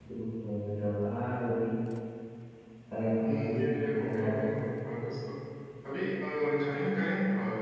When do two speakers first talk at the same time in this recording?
3.2 s

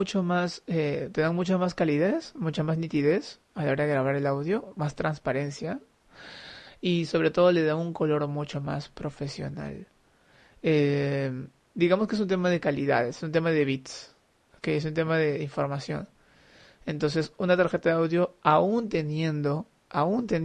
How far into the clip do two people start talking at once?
none

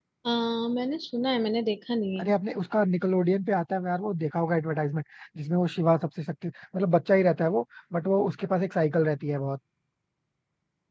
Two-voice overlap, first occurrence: none

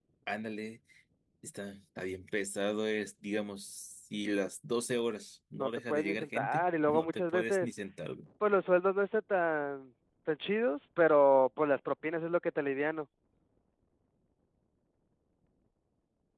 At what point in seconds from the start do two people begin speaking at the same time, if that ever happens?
5.6 s

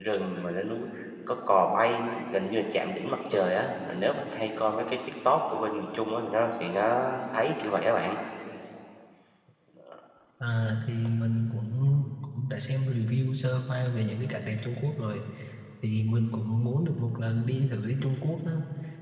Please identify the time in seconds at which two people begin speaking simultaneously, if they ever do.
none

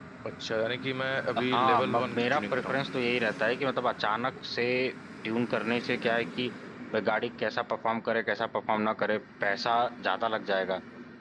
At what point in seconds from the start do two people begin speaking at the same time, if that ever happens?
1.4 s

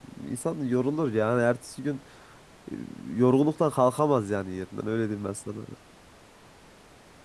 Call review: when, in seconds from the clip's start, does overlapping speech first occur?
none

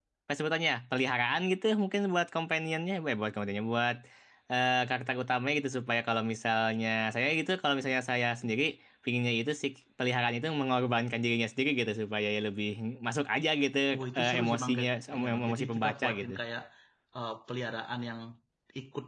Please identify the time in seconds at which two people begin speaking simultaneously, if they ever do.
14.2 s

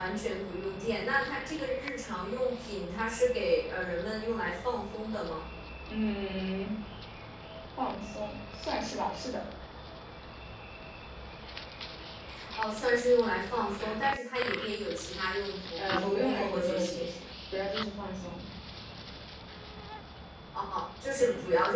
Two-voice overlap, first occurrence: 15.8 s

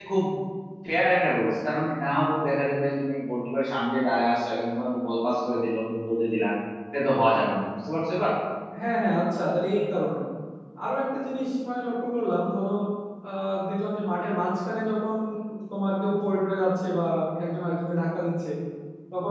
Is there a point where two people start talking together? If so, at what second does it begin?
none

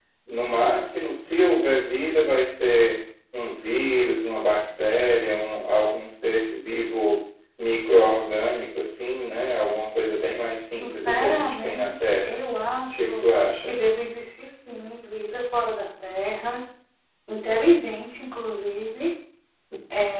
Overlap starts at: 10.8 s

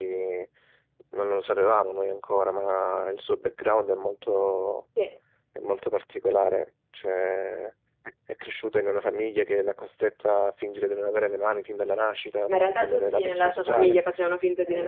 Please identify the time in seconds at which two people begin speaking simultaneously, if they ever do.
12.5 s

